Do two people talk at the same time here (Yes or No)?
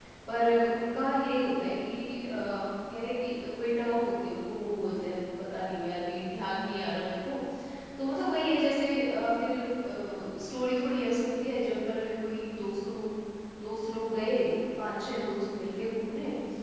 No